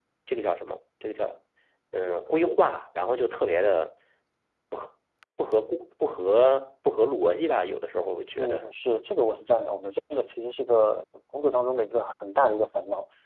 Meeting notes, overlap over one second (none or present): none